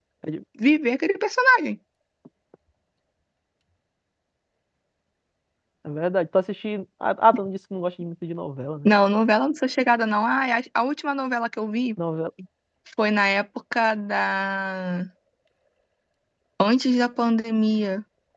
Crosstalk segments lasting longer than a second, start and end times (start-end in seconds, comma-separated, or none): none